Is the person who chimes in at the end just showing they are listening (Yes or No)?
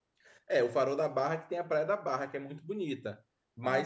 Yes